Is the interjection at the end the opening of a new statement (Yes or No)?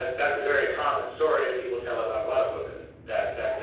No